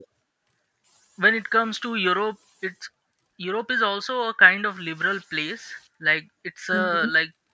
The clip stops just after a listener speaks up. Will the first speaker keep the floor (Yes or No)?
Yes